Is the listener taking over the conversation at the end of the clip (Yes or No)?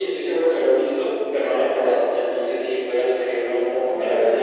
Yes